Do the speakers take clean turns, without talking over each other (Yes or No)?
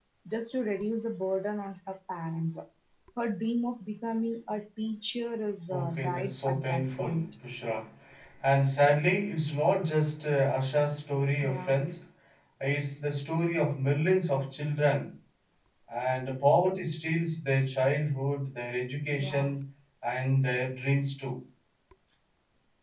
No